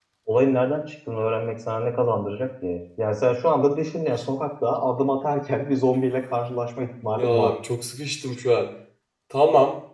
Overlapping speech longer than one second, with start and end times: none

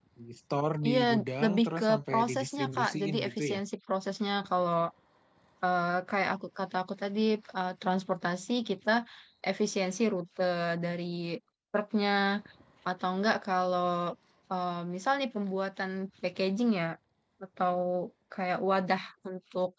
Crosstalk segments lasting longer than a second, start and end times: 1.4-3.6

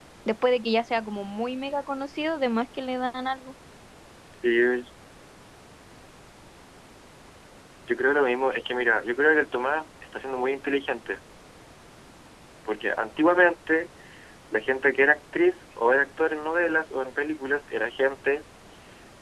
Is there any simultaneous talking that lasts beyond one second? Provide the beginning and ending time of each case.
none

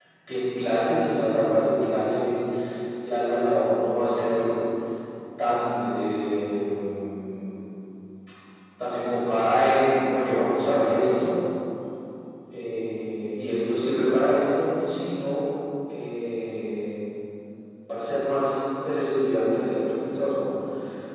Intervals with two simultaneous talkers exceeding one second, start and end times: none

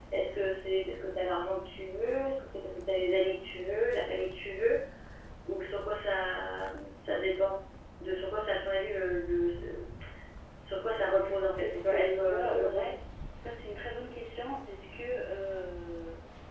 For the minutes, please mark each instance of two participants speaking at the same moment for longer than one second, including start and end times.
11.6-12.9

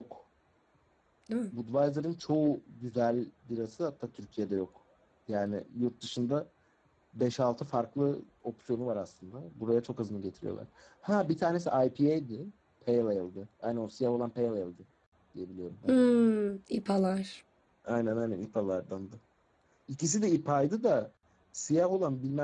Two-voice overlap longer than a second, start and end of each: none

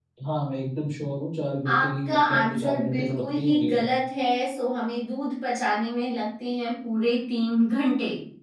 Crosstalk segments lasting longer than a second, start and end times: 1.7-3.9

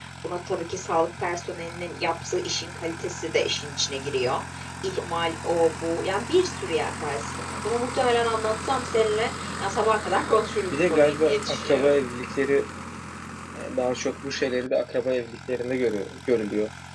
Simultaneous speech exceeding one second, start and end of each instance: 10.7-11.9

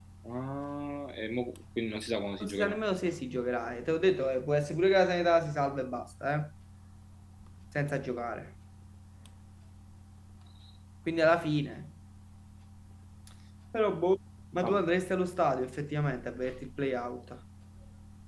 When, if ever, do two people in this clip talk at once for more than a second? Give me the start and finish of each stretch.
none

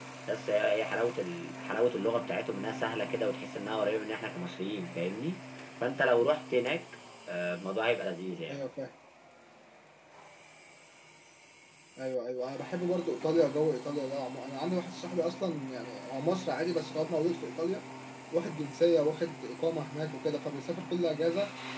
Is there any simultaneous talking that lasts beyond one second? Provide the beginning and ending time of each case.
none

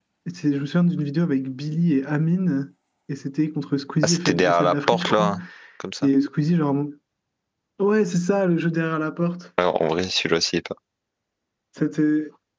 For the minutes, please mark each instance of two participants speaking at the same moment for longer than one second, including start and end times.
4.0-5.3

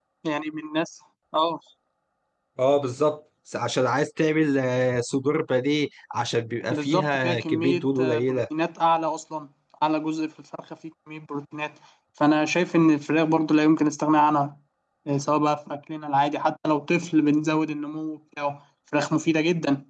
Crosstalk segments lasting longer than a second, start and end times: 6.7-8.4

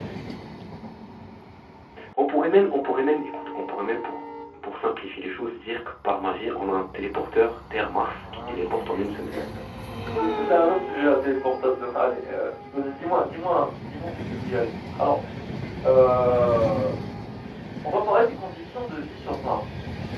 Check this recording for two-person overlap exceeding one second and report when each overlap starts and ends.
none

